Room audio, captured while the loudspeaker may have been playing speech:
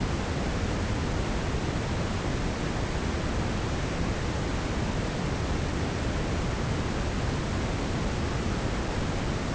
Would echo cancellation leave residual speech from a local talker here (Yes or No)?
No